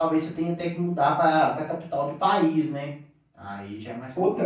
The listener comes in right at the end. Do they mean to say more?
Yes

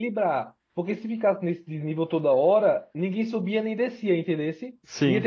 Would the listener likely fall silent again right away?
Yes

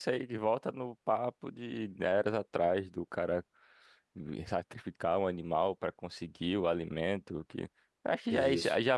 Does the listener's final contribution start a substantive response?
No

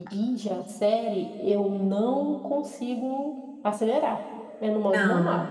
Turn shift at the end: Yes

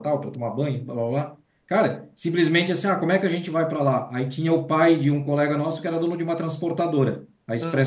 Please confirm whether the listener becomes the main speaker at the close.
No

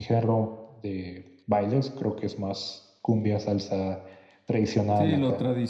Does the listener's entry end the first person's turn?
Yes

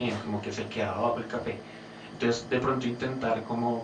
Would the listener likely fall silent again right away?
Yes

